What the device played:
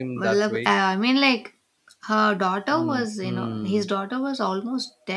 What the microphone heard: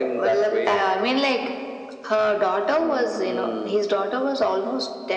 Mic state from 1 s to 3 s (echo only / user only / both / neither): echo only